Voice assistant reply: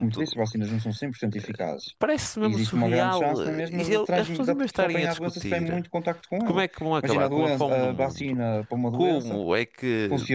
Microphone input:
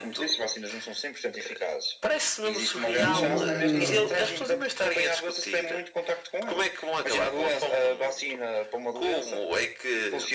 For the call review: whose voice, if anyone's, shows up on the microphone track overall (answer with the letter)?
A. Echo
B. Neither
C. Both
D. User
C